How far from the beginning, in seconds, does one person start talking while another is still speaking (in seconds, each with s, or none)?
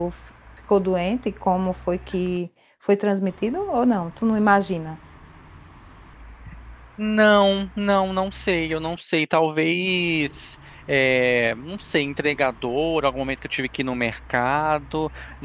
none